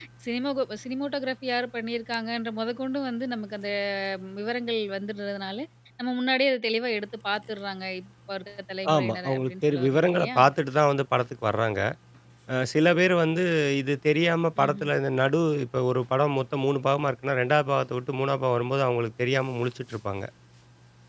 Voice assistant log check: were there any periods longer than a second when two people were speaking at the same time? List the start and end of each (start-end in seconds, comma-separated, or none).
9.0-10.4